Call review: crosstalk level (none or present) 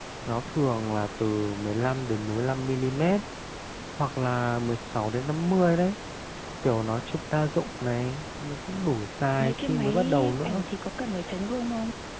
present